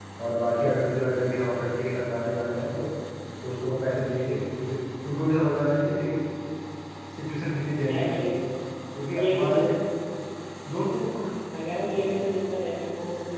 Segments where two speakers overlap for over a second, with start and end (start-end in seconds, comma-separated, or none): none